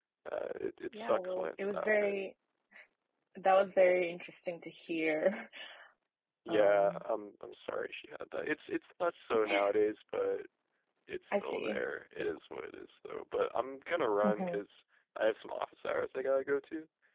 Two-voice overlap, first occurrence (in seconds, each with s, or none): 0.9 s